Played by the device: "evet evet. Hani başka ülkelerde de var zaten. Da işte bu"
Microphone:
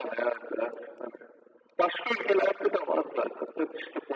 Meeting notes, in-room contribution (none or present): none